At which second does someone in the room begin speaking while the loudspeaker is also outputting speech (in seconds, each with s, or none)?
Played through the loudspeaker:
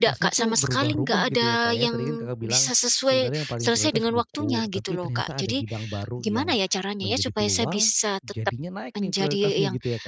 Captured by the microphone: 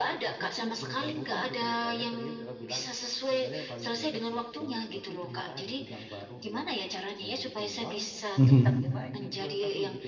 8.4 s